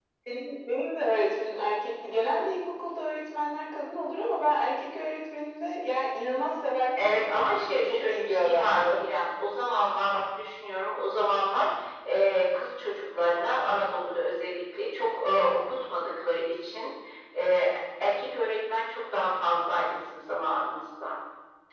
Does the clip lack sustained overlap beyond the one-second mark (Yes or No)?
No